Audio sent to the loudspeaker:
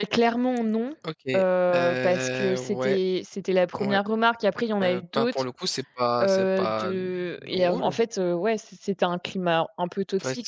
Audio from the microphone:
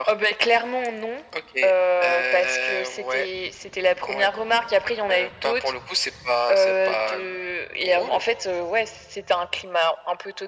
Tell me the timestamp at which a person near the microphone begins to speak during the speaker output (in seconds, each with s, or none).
none